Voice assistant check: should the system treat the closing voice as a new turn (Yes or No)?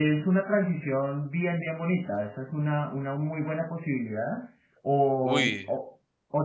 No